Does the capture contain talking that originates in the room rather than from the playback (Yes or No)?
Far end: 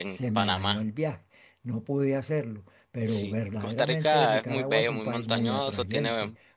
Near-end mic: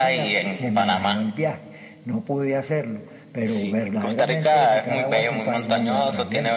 No